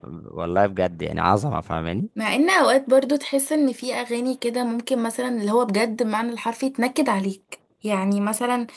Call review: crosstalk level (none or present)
none